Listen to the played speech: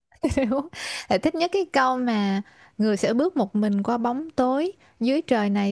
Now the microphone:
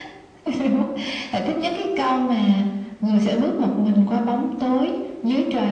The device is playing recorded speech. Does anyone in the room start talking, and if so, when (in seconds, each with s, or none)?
none